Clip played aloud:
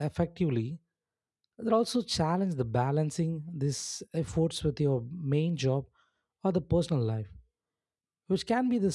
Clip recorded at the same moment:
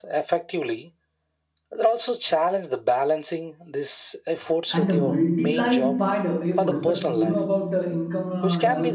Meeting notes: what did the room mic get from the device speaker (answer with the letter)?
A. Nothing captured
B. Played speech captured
B